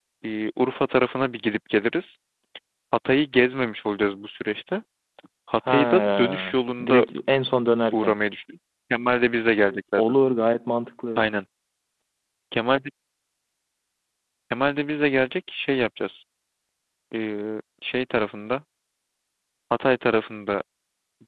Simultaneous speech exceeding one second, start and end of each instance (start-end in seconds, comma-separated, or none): 5.7-7.0